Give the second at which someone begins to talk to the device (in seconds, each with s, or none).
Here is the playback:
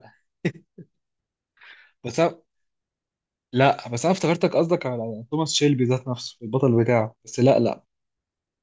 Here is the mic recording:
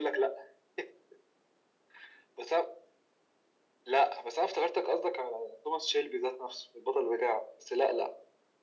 none